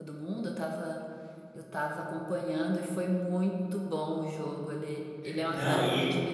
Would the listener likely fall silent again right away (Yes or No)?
No